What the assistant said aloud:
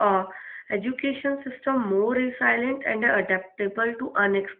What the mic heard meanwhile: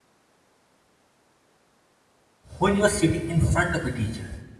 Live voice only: When you are sitting in front of a teacher,

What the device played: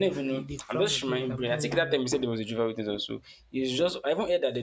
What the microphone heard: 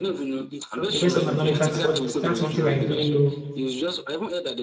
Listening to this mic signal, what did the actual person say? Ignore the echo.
To the best of my knowledge, that's what that's one thing I really know

